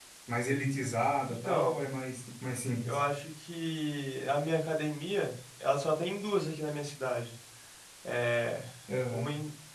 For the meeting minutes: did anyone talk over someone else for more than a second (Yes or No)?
No